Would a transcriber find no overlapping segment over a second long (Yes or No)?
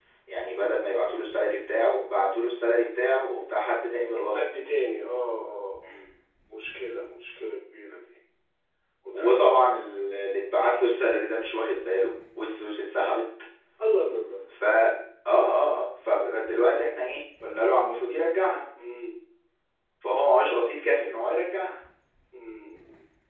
Yes